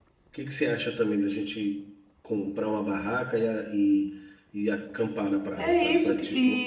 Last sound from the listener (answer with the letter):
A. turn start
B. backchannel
A